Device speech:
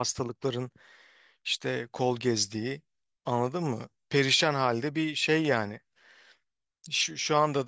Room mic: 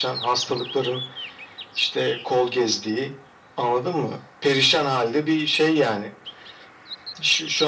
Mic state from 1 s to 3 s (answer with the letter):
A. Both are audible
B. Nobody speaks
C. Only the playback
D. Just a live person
C